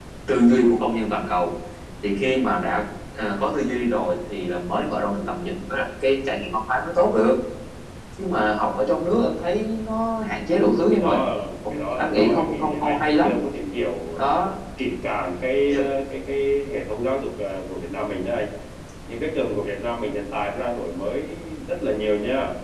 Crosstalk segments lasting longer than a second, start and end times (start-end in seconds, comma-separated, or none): 11.7-13.3